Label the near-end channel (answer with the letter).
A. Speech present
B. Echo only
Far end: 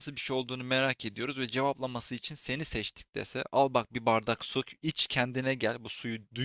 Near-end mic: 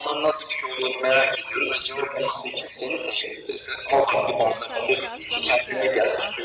A